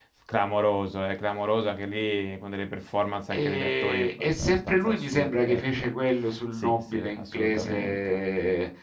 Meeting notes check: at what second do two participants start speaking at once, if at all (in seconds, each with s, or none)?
3.3 s